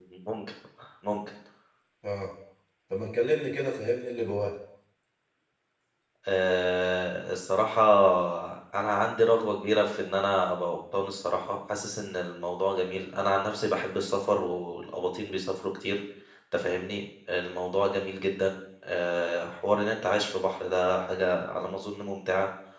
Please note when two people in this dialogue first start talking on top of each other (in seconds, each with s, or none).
none